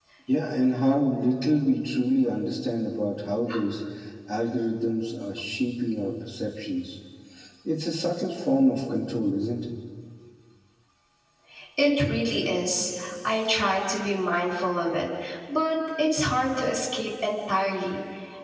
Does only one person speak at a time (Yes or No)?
Yes